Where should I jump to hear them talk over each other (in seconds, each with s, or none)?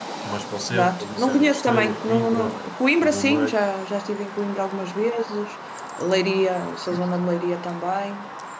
0.7 s